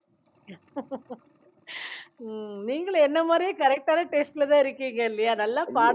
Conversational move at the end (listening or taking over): taking over